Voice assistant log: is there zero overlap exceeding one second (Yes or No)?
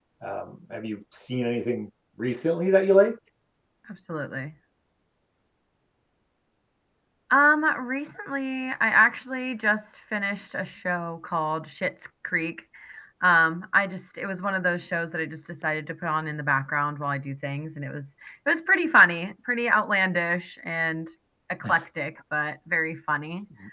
Yes